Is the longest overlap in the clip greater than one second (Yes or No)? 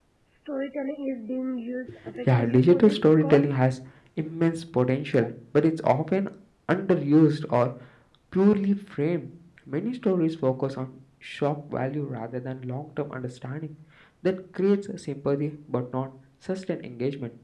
Yes